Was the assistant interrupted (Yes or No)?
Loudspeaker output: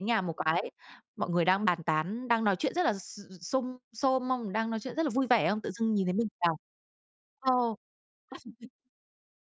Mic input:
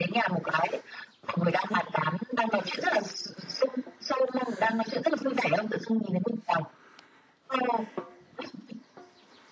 No